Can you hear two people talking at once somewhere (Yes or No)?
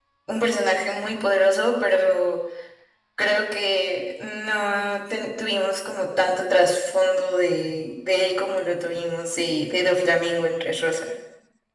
No